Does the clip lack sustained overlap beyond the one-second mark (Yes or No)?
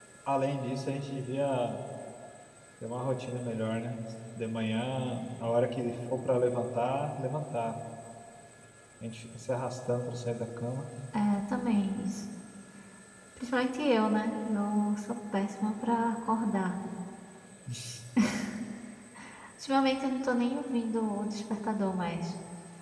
Yes